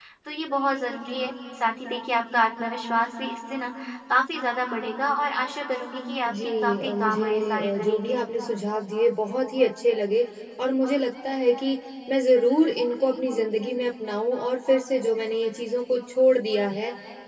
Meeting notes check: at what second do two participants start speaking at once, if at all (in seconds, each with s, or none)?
6.2 s